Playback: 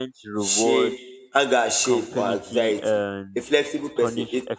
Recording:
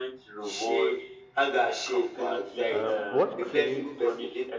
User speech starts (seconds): 2.7 s

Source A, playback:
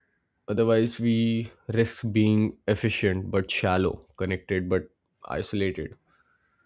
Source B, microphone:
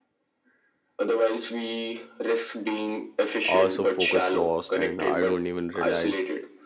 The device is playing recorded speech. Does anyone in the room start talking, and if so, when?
3.5 s

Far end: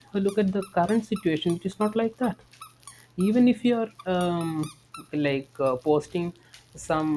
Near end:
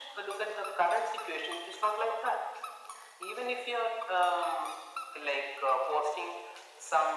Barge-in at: none

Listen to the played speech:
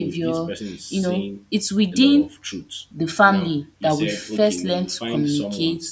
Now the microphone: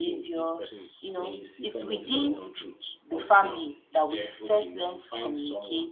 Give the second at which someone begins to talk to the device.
1.1 s

